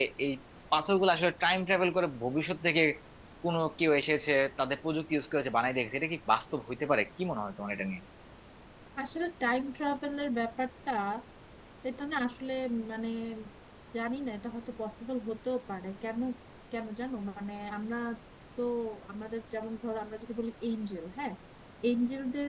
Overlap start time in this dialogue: none

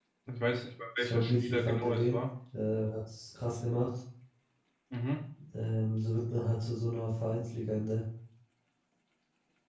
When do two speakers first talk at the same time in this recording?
1.0 s

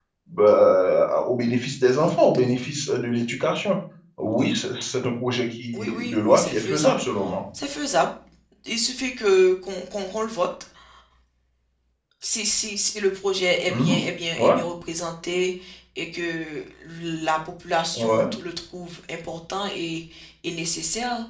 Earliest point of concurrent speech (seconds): 5.7 s

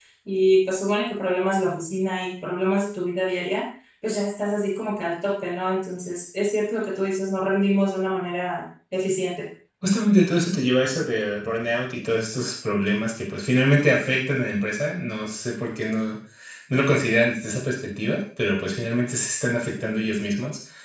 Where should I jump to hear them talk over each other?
none

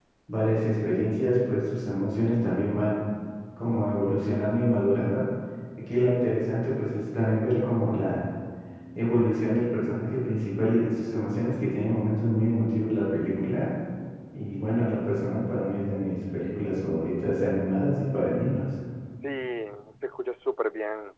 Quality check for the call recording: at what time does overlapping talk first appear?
none

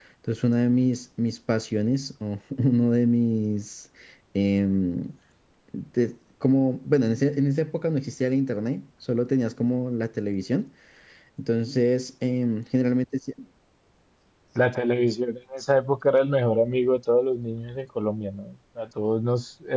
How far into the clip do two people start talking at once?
none

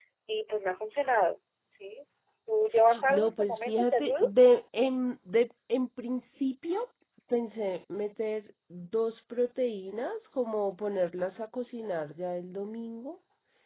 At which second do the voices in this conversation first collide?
3.1 s

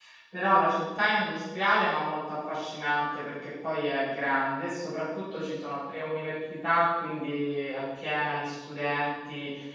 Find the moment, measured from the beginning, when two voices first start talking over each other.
none

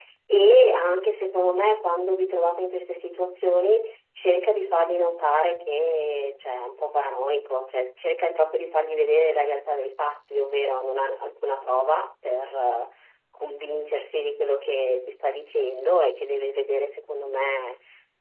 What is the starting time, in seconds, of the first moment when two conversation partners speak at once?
none

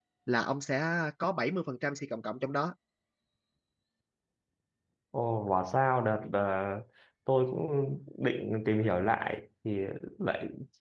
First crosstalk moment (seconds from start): none

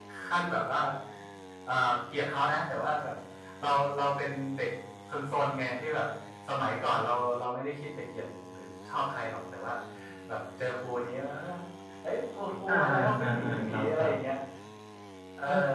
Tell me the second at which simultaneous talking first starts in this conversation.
12.7 s

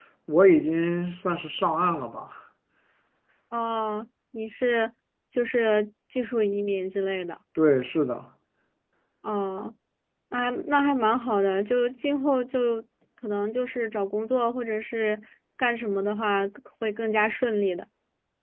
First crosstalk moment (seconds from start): none

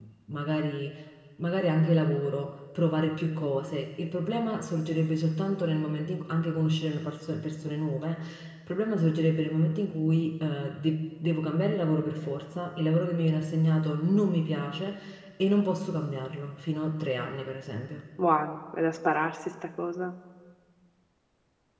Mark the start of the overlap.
none

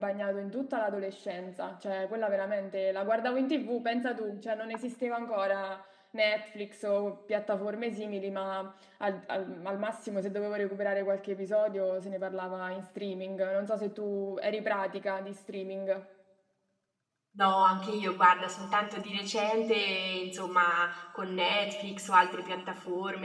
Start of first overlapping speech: none

